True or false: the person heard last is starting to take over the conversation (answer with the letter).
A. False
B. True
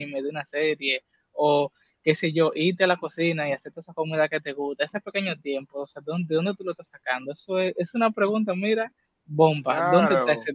B